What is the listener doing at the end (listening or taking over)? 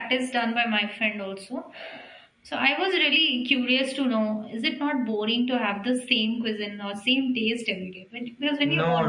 taking over